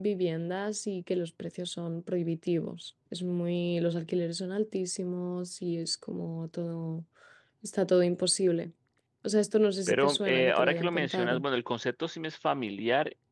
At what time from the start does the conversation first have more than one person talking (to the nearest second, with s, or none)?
10 s